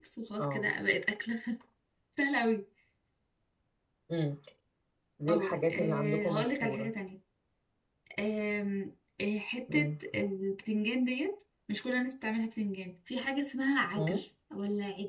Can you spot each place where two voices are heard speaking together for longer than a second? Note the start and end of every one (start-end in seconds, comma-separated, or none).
5.3-6.9